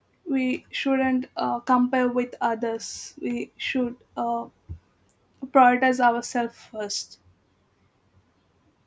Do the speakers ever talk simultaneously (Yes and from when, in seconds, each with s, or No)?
No